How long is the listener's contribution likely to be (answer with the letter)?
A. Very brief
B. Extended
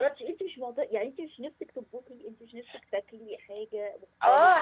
B